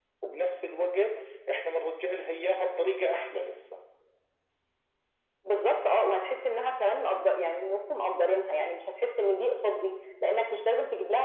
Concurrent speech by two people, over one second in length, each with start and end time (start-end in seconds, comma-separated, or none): none